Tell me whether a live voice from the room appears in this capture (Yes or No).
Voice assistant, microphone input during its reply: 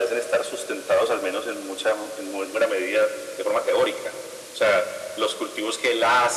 No